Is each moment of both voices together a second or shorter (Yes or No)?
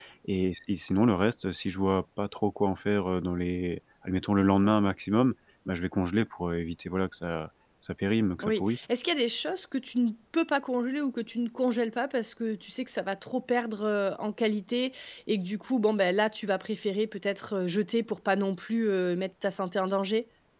Yes